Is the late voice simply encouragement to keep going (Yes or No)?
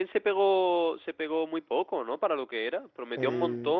Yes